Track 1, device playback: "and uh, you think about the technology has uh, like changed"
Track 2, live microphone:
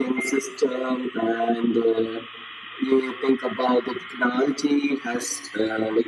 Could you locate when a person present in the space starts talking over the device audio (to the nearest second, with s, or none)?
none